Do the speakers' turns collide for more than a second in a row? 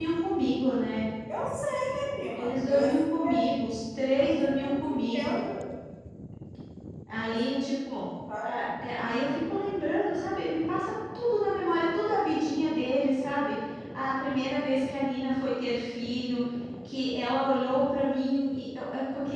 Yes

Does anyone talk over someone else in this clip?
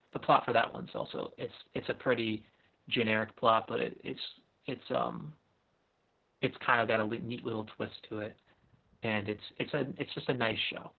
No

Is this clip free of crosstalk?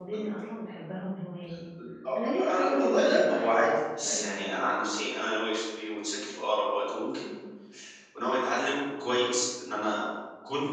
No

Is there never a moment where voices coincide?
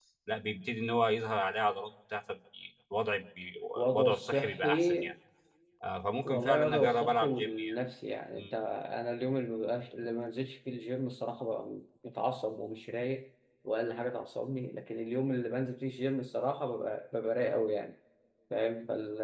No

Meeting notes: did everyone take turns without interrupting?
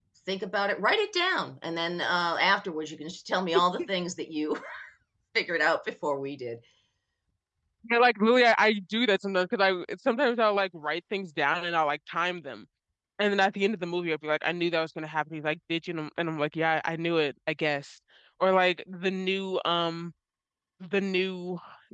Yes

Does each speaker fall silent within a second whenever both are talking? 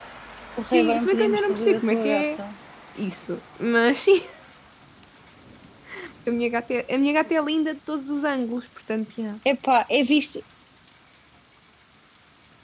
No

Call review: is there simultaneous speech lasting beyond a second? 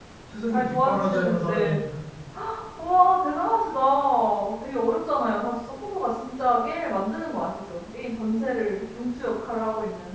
Yes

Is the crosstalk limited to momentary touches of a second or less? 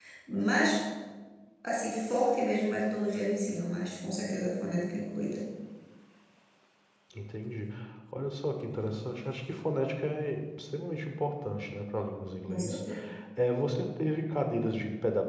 Yes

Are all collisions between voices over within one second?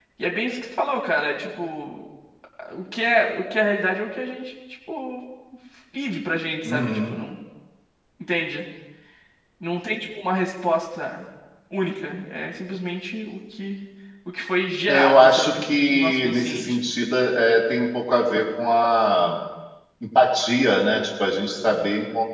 No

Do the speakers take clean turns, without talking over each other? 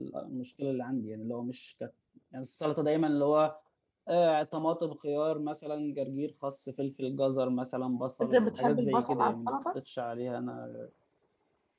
No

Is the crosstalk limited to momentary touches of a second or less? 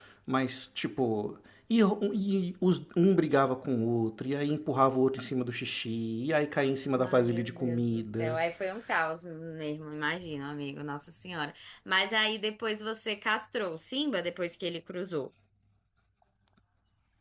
No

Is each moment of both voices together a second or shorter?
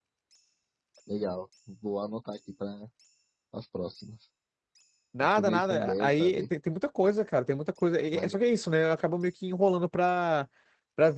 No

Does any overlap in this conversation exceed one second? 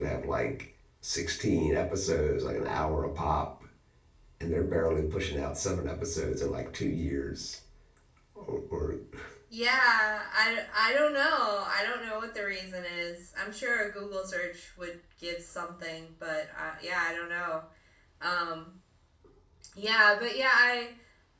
No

